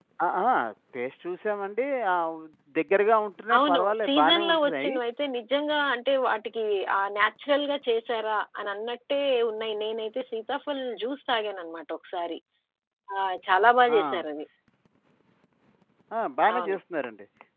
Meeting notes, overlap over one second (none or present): present